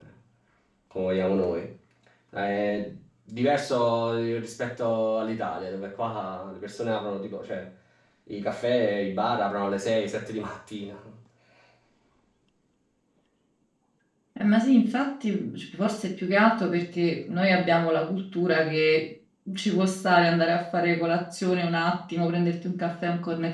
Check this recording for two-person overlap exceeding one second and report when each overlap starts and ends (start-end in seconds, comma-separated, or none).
none